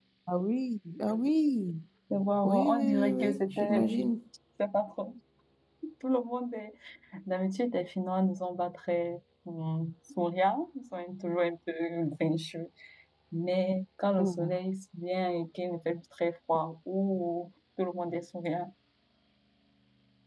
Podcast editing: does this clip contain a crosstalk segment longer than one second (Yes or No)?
Yes